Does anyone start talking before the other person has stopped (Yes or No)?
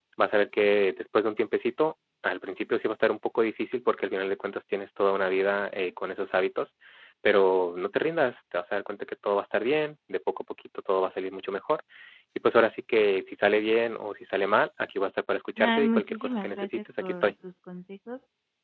Yes